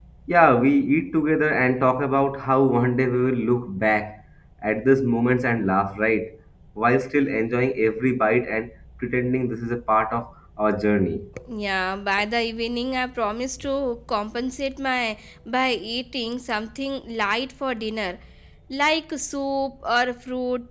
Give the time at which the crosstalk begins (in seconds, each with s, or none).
none